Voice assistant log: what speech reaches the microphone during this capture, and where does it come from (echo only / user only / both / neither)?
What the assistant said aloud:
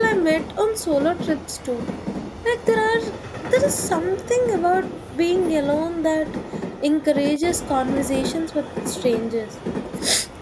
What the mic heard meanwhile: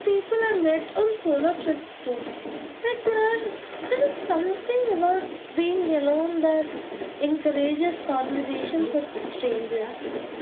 both